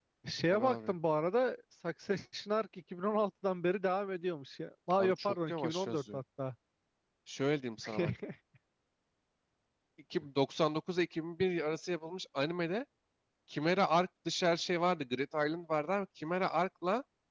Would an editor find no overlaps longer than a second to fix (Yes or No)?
No